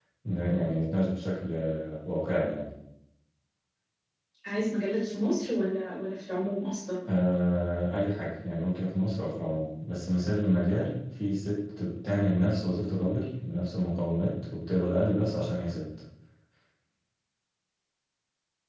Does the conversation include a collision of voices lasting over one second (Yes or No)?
No